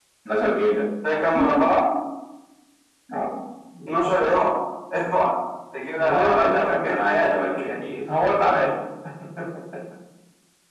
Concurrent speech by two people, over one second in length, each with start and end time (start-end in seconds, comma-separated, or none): 6.0-7.4